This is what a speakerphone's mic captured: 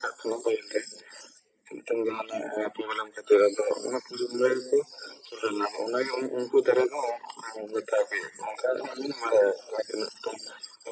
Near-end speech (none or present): none